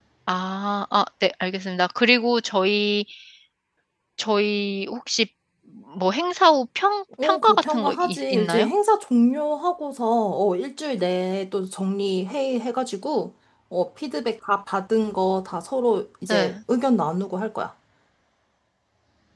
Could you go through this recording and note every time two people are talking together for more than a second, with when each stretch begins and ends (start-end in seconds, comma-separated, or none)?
7.2-8.7